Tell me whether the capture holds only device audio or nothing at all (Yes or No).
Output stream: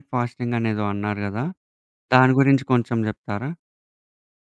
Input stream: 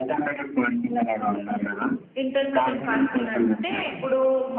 No